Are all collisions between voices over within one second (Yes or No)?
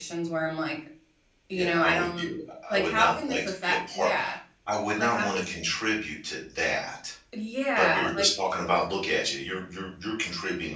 No